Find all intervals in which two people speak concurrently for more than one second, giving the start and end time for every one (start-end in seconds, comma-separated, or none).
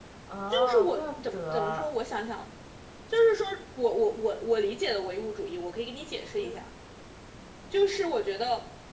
0.5-1.9